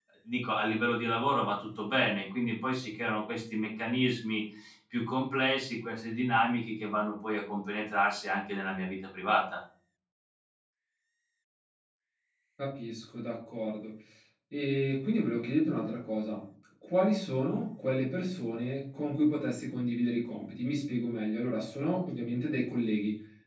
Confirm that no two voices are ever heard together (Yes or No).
Yes